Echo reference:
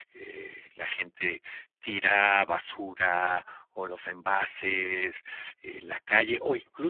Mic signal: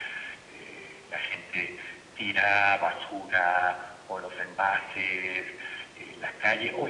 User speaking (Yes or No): No